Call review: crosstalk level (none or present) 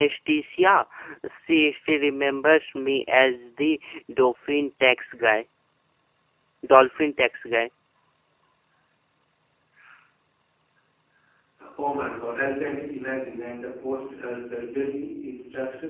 none